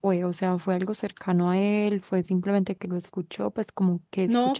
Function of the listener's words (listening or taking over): taking over